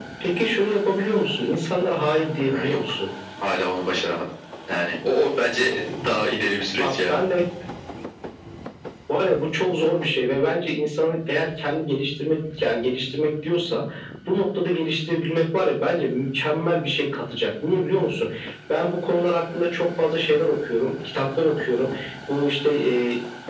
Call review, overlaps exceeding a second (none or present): none